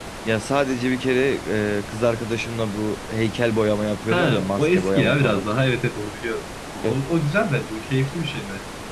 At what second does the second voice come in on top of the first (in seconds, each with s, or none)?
4.1 s